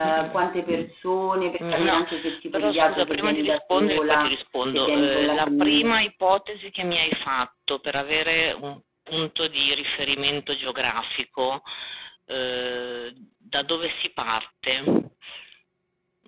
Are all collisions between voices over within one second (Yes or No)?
No